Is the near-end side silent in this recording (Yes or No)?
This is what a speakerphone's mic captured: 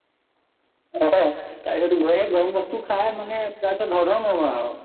Yes